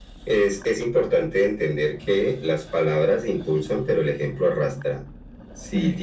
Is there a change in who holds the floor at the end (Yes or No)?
No